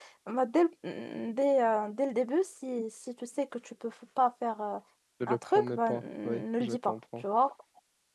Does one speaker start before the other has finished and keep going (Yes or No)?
Yes